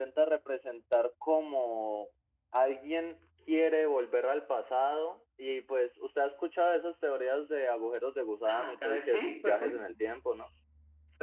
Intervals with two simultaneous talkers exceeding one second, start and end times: 8.4-9.9

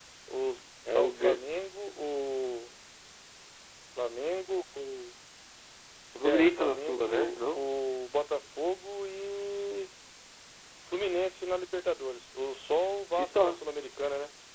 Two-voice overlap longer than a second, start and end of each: 6.2-7.6

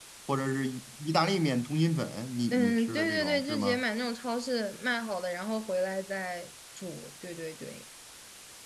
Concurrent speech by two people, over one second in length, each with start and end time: 2.5-3.8

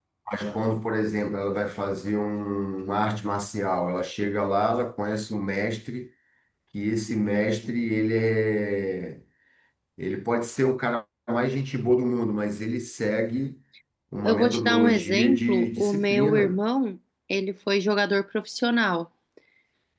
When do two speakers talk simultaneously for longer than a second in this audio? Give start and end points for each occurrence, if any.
14.2-16.6

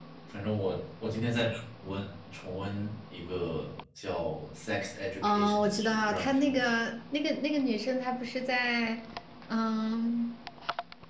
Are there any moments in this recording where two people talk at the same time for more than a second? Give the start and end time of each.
5.2-6.8

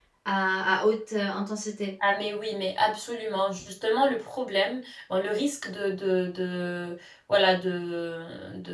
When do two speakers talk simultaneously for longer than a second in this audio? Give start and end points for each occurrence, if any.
none

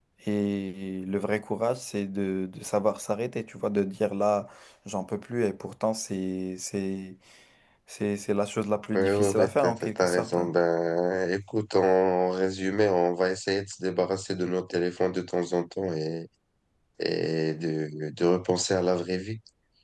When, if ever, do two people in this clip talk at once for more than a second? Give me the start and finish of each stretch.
8.9-10.5

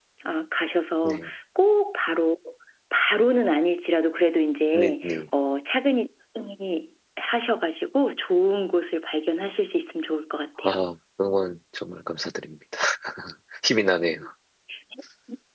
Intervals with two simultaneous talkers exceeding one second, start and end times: none

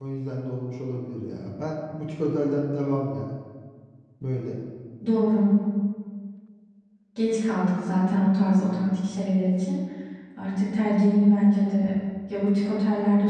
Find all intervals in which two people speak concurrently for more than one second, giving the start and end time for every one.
none

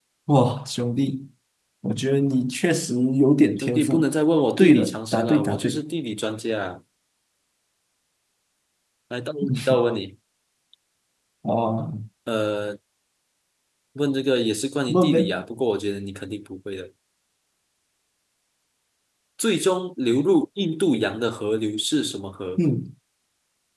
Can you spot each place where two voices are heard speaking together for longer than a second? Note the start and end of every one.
4.6-5.8

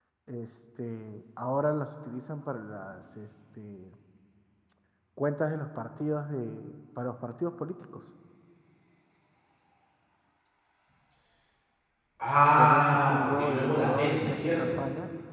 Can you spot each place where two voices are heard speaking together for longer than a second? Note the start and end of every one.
12.5-14.8

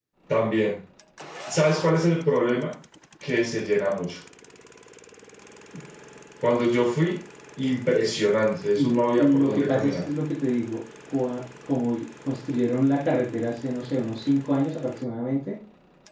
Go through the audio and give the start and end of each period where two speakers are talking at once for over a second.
8.8-10.0

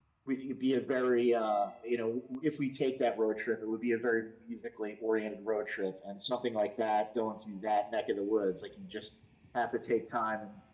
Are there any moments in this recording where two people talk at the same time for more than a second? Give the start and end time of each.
none

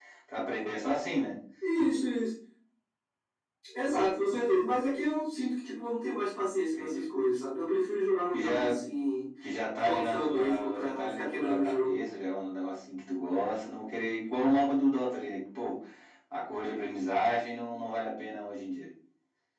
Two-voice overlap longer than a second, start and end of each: 9.8-12.0

